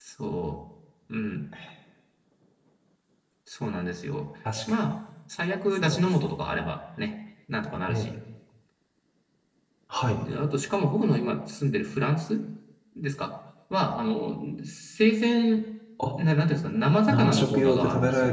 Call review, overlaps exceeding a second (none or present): present